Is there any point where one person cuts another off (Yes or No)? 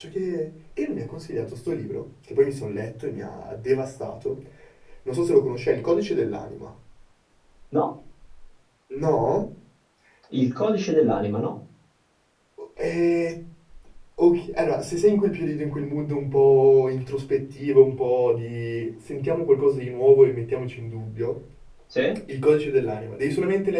No